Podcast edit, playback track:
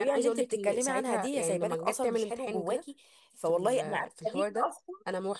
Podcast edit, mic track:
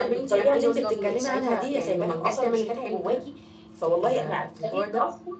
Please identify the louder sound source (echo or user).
echo